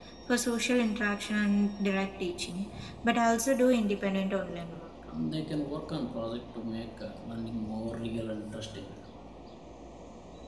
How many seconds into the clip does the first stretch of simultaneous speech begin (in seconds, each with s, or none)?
none